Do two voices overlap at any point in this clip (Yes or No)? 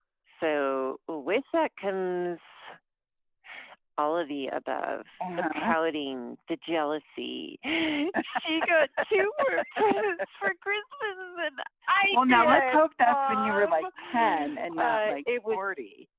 Yes